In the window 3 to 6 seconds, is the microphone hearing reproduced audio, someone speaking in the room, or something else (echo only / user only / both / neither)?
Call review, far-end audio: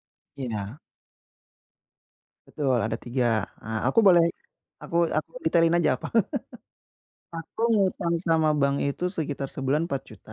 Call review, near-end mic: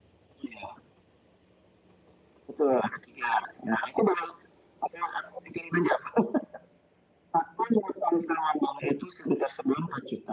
echo only